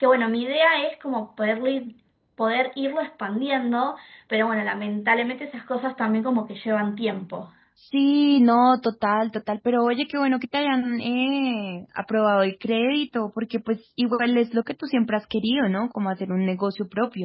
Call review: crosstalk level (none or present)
none